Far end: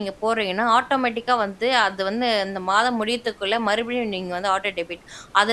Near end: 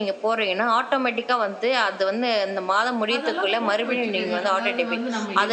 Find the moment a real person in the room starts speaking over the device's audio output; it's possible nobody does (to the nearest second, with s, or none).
3 s